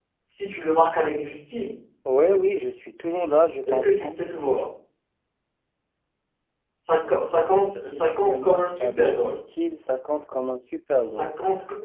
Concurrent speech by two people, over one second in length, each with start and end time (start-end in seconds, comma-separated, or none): 7.8-9.4